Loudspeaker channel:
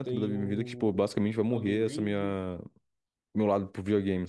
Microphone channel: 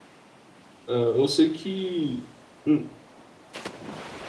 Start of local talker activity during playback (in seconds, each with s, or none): 0.9 s